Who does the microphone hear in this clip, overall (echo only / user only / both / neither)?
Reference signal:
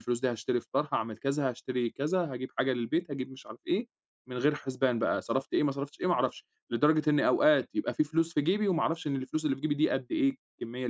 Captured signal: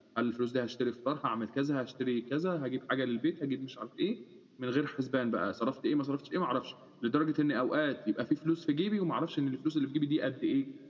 echo only